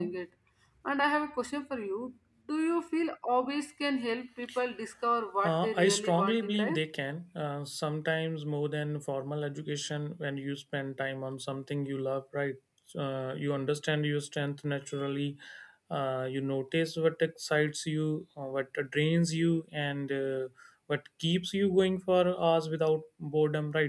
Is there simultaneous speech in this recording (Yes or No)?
Yes